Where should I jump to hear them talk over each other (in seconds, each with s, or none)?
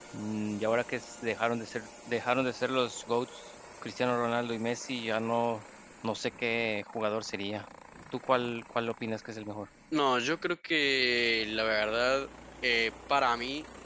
none